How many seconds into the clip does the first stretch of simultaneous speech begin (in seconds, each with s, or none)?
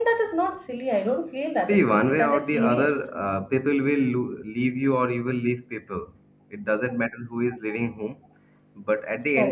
1.7 s